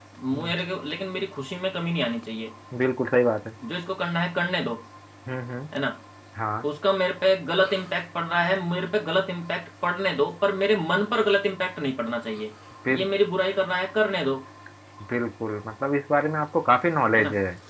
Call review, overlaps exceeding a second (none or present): none